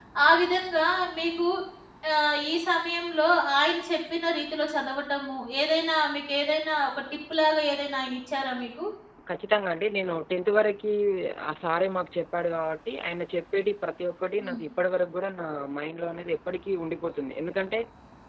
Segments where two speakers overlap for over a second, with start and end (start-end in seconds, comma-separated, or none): none